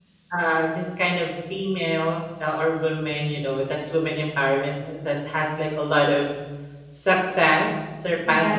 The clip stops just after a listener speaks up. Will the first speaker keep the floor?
Yes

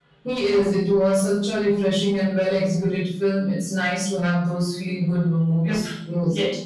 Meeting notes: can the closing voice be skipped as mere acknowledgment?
No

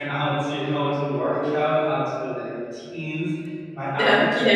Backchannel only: Yes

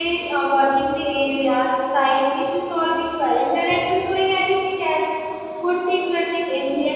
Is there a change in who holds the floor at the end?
Yes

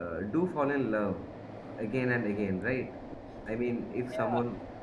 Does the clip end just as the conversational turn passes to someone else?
Yes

